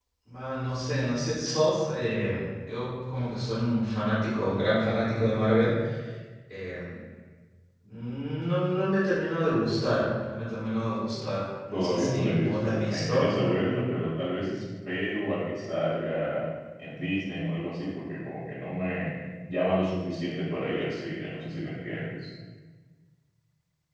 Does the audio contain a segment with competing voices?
Yes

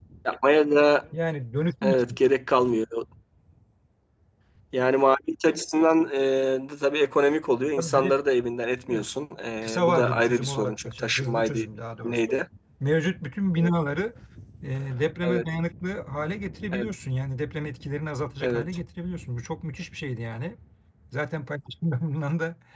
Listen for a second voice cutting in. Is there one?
Yes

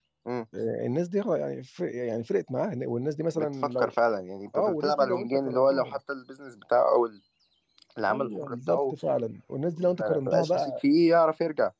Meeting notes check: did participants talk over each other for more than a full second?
Yes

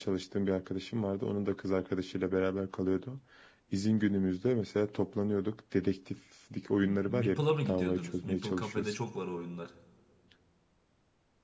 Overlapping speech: Yes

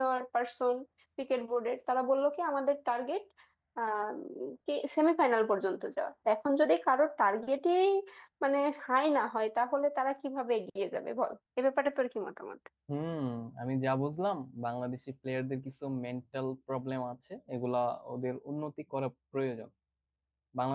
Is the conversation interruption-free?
Yes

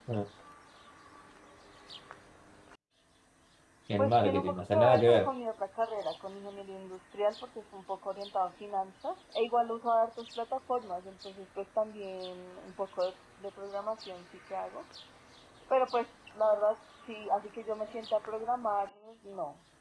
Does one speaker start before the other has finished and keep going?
Yes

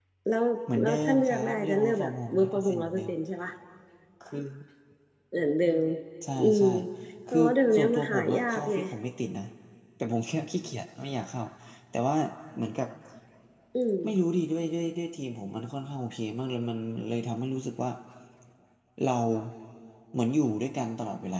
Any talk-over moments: Yes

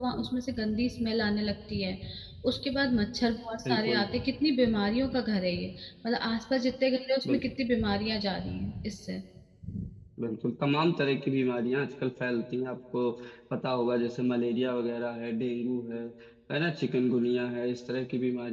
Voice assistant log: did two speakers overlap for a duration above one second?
No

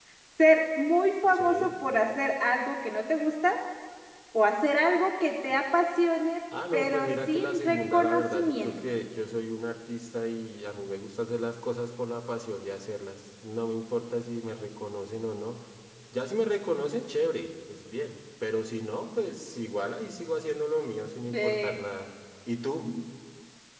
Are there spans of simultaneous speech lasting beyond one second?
Yes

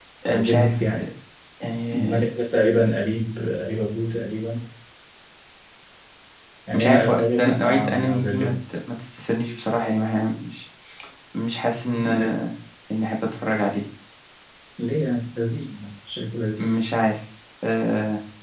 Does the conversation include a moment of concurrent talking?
Yes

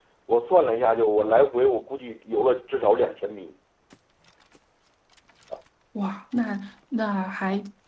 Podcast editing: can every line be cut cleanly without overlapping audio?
Yes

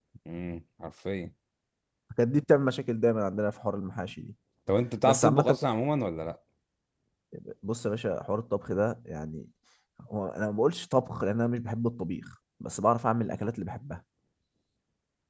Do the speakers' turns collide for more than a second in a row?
No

